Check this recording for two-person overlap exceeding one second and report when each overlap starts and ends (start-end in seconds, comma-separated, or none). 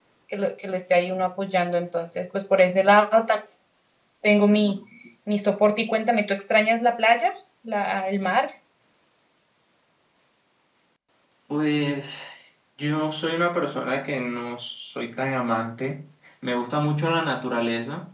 none